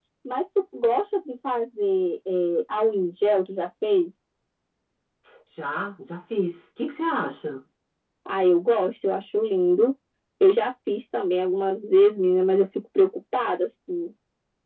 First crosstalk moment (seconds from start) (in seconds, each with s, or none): none